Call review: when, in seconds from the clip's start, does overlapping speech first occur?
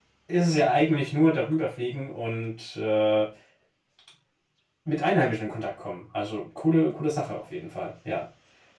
none

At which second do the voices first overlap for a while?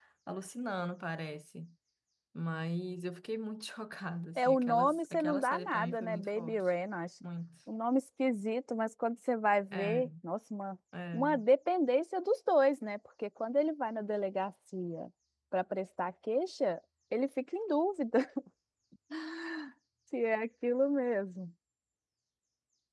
4.4 s

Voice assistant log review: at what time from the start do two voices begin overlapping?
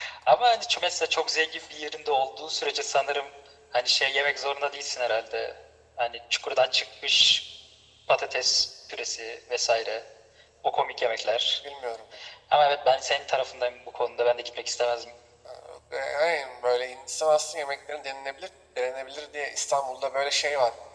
none

